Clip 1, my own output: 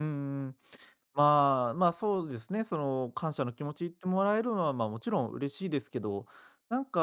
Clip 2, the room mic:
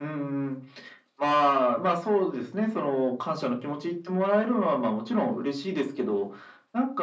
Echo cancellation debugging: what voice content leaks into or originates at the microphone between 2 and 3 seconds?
echo only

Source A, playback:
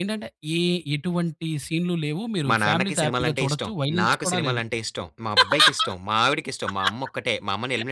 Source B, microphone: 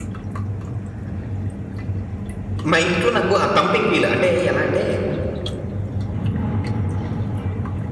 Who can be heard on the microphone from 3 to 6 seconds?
user only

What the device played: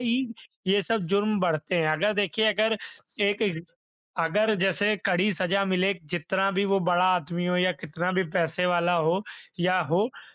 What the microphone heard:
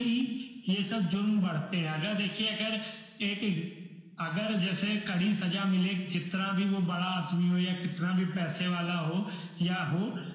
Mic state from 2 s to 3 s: echo only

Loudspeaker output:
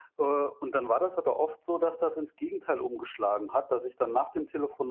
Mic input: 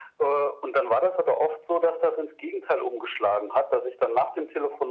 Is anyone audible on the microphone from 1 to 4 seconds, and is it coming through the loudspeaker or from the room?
echo only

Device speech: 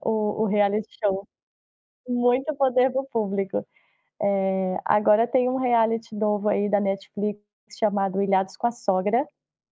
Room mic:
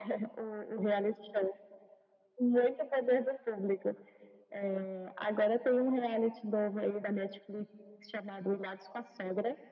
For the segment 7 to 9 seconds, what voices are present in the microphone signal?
echo only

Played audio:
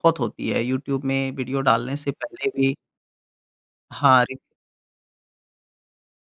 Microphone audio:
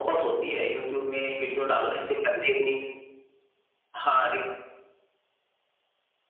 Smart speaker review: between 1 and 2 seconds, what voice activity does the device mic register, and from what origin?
echo only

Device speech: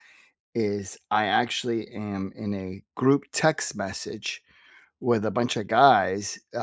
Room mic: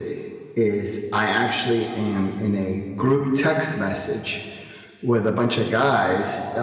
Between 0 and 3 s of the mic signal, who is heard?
echo only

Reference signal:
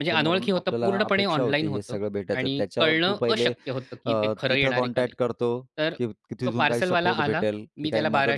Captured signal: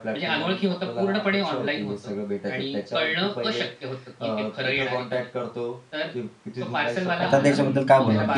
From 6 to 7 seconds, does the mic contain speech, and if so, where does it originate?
echo only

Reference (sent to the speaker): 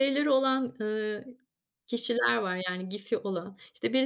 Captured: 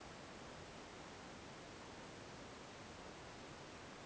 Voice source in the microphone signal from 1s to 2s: neither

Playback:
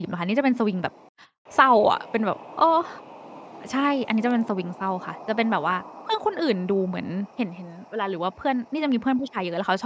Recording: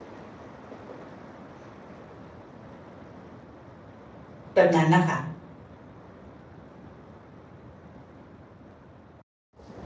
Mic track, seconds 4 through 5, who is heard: user only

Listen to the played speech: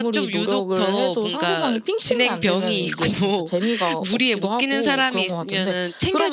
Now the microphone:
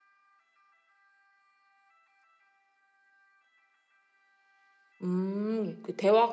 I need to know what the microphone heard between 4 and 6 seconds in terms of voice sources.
user only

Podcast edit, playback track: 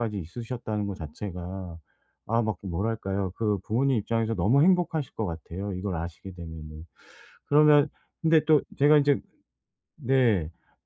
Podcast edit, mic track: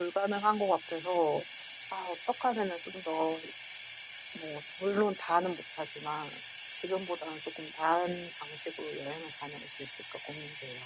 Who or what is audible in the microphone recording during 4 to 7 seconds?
user only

